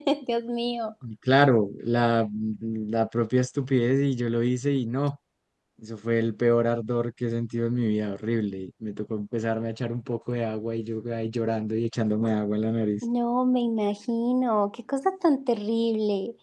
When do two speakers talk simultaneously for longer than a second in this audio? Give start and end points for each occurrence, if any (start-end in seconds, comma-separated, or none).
none